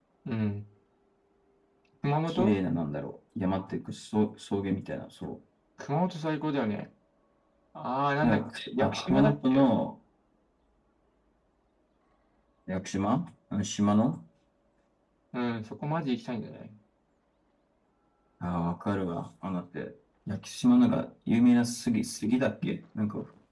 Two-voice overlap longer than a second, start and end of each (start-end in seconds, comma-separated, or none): 8.2-9.6